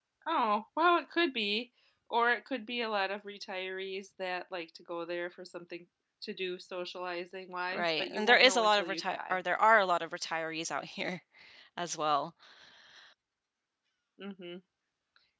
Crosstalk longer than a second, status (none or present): present